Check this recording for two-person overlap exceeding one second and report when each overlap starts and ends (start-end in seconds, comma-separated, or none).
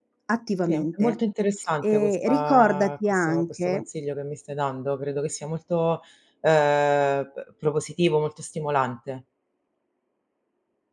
1.8-3.8